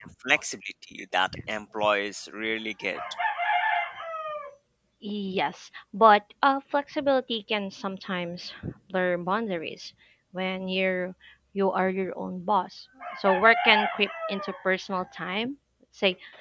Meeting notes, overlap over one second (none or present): none